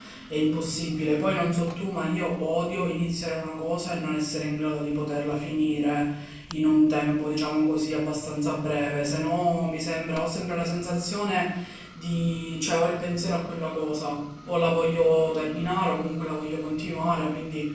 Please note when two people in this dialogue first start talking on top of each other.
none

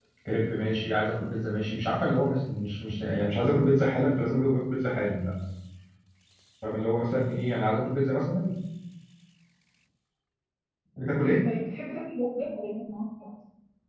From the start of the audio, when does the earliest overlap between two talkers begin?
none

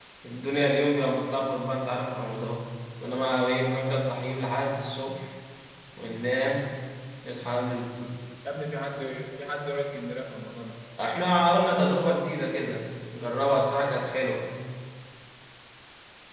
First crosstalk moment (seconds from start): none

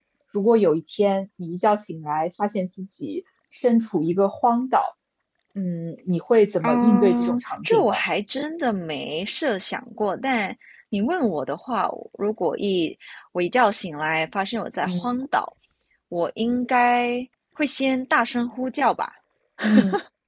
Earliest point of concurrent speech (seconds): 6.6 s

